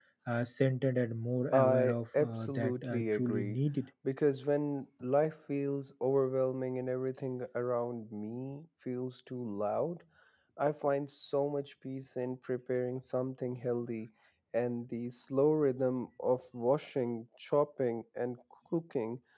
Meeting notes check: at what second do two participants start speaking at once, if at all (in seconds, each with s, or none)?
1.5 s